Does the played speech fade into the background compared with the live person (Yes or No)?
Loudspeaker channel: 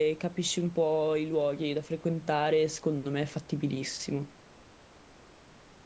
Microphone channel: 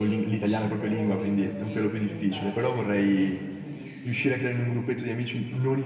Yes